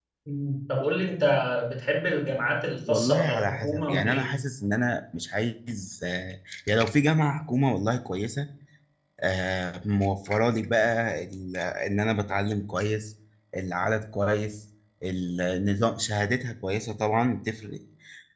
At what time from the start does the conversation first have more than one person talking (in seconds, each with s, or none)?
2.9 s